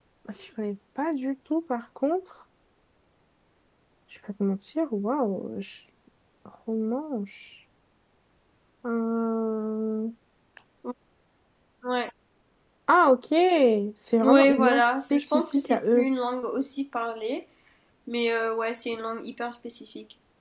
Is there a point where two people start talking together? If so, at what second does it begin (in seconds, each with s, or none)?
14.2 s